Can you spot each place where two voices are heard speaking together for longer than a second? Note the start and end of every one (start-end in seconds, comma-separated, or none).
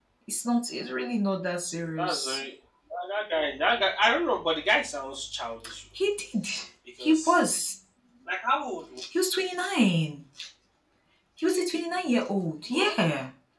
none